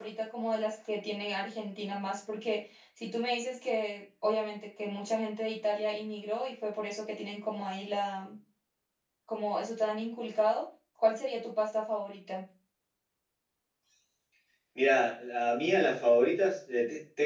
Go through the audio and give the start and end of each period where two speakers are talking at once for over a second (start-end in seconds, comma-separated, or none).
none